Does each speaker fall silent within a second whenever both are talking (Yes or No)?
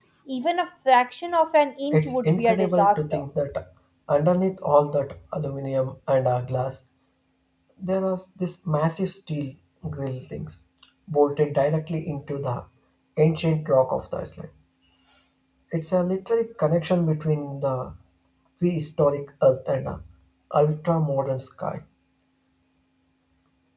No